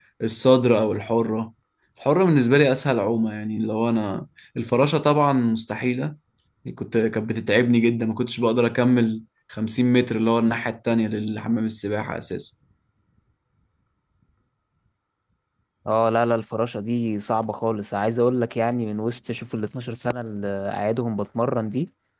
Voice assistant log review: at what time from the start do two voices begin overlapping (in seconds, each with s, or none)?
none